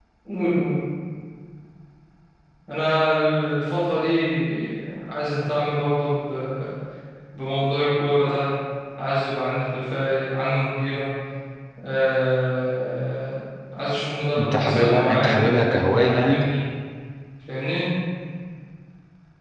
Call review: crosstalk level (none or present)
present